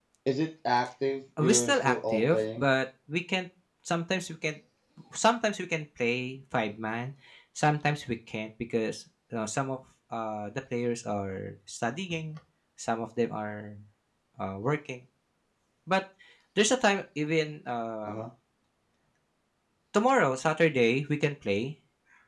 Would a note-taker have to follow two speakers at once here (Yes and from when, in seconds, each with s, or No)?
Yes, from 1.4 s